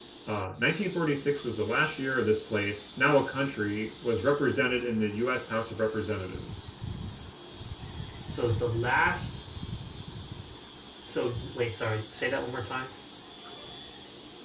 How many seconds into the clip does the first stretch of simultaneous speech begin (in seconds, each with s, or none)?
none